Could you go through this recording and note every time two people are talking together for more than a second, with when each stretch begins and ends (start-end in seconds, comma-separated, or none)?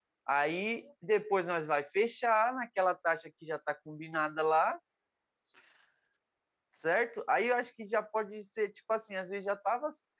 none